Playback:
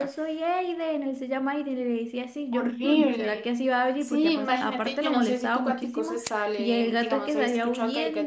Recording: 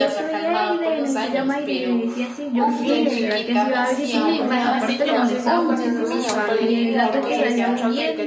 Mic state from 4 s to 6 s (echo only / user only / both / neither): both